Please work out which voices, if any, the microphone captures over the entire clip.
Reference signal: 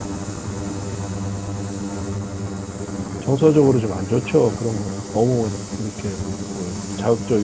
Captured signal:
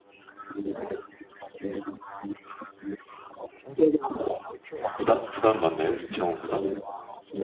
both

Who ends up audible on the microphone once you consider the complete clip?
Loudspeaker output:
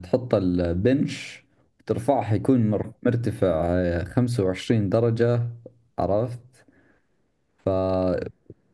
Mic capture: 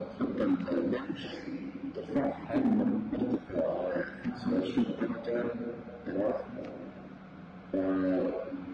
both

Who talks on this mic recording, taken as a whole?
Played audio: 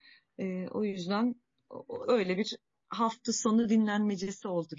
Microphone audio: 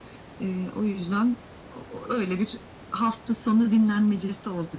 echo only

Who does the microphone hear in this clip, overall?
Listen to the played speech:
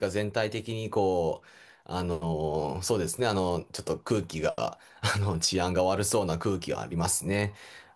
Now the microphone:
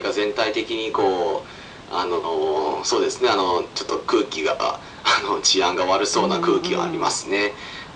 both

